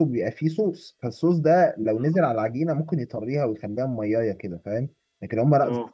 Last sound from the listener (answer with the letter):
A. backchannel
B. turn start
A